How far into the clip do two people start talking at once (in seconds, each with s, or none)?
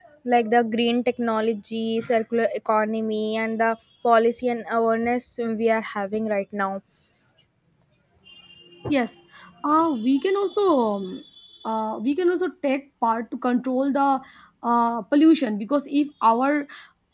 none